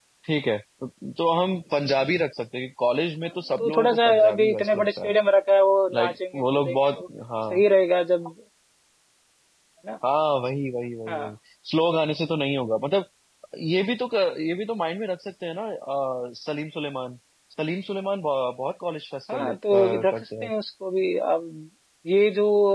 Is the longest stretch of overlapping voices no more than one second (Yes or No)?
No